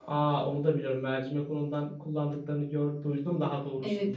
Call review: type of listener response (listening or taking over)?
taking over